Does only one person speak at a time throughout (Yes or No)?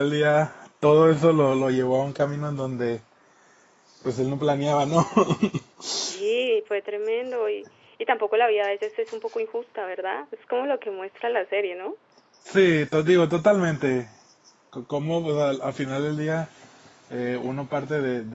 Yes